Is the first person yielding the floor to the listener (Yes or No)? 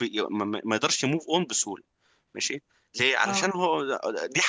No